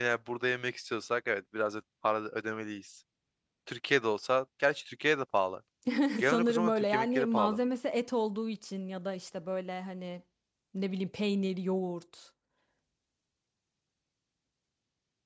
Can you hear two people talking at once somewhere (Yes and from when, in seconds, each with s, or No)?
Yes, from 6.2 s